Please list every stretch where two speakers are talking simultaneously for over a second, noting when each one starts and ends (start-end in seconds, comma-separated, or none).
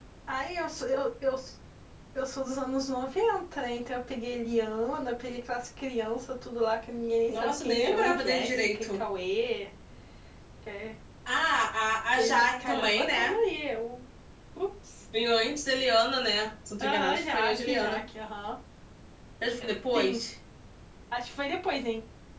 7.3-9.0, 12.2-13.4, 16.8-18.0